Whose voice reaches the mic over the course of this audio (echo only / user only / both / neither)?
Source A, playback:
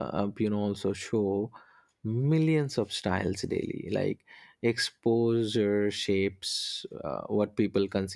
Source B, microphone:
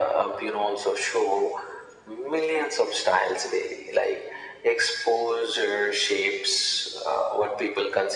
echo only